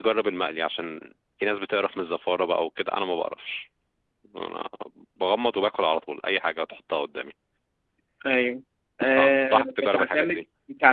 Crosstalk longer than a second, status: present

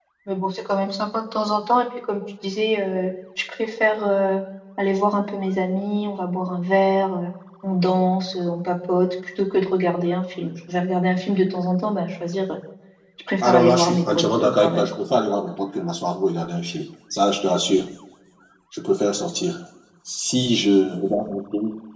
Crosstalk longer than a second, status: present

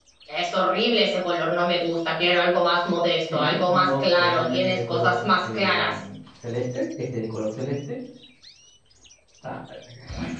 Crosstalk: present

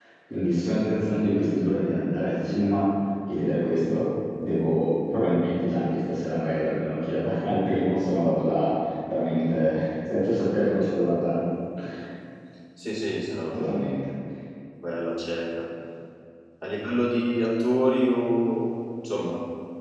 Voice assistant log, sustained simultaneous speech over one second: none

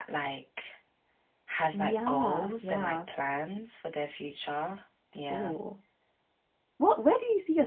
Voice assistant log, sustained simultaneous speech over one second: present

